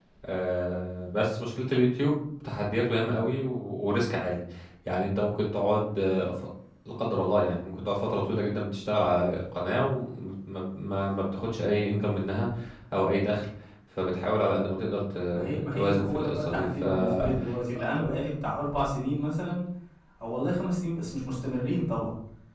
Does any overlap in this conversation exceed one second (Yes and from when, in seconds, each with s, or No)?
Yes, from 15.3 s